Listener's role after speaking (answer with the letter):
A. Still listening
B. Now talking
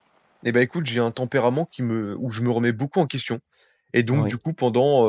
A